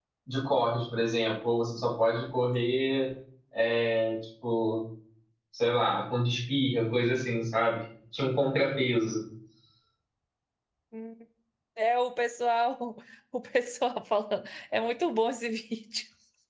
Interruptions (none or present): none